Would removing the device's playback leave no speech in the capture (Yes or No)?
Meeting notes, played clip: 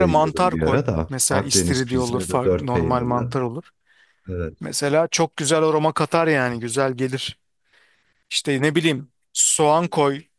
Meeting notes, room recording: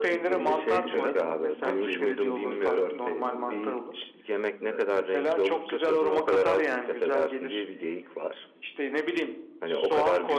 No